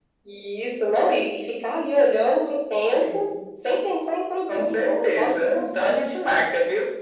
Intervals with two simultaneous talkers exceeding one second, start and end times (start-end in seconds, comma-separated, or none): 4.5-5.9